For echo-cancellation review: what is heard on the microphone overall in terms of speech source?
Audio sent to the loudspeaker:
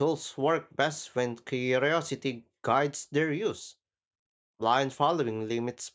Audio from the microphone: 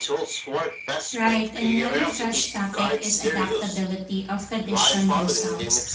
both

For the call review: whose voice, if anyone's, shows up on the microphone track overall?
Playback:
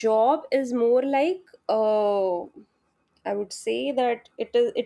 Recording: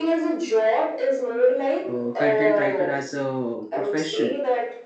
both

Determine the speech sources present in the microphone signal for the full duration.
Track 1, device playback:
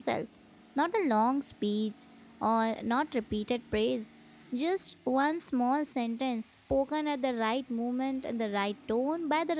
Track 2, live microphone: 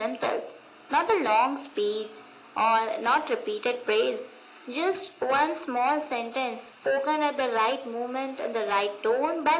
echo only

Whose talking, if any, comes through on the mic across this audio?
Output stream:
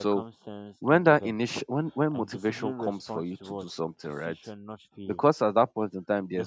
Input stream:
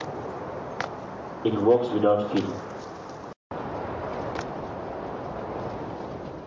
user only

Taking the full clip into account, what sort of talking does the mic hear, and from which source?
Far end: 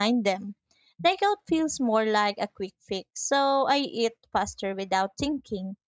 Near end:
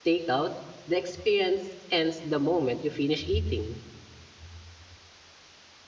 user only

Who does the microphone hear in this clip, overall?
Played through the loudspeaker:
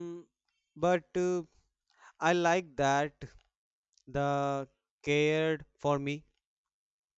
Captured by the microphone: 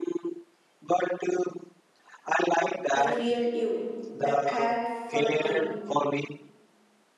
both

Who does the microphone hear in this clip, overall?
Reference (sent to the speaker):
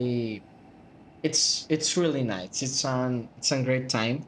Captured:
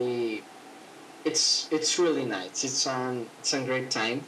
echo only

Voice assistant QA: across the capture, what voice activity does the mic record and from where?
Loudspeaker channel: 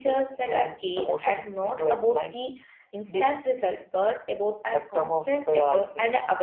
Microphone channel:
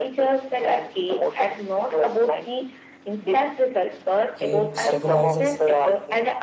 both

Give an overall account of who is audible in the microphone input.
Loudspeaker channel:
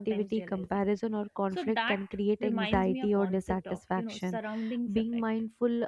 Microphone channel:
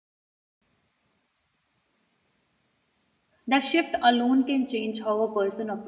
user only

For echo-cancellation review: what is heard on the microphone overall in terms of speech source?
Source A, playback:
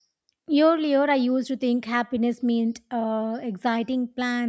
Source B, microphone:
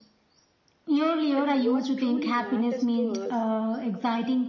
both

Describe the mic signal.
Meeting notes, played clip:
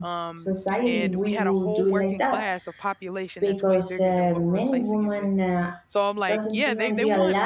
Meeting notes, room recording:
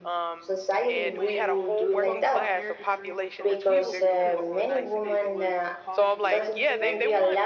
both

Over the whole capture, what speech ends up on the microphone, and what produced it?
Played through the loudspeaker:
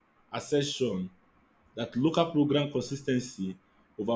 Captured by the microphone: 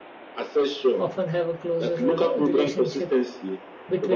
both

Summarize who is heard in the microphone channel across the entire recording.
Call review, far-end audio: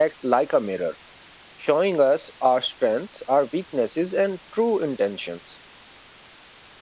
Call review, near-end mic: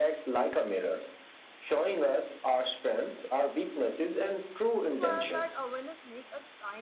both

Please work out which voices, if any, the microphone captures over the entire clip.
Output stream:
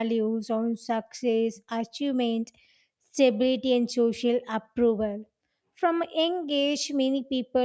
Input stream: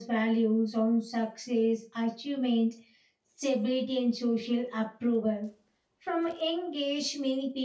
echo only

